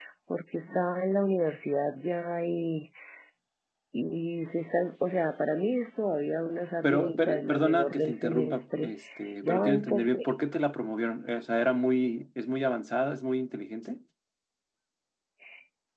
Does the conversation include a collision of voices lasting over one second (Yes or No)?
Yes